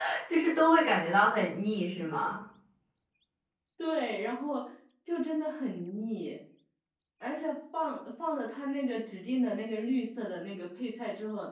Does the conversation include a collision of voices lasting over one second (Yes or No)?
No